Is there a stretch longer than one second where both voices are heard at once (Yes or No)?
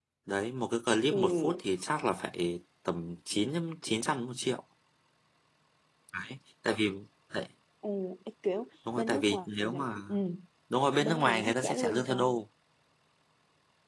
Yes